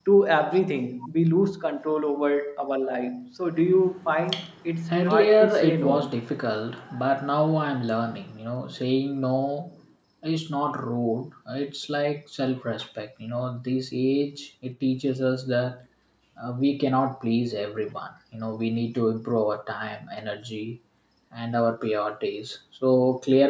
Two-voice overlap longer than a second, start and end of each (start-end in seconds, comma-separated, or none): 4.9-6.2